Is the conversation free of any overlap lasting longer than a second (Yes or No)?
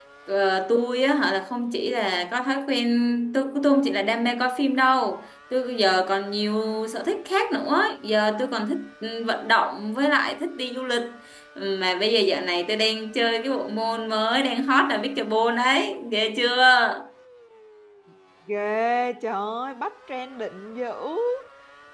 Yes